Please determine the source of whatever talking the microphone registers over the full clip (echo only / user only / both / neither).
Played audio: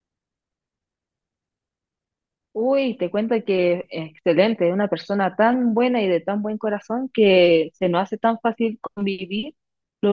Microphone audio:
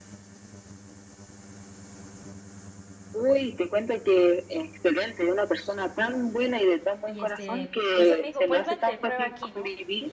both